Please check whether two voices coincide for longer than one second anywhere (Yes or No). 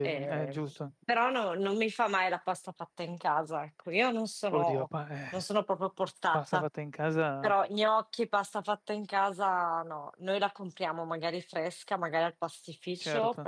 No